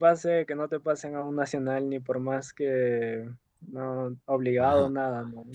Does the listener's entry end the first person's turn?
Yes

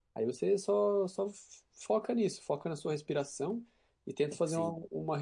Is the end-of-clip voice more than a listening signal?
No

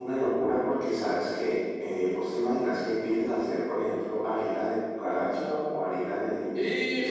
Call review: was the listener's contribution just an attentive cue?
Yes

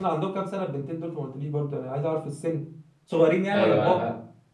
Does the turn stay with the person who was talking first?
No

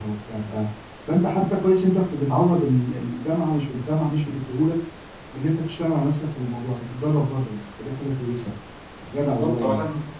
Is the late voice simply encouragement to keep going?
No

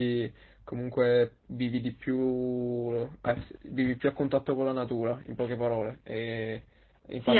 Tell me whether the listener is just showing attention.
No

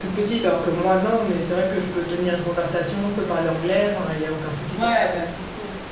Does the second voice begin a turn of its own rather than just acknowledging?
Yes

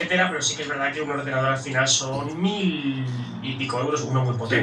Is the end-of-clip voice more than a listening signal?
Yes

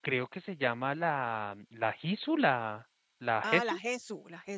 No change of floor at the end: No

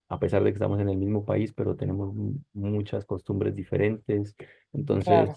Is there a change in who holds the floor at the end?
No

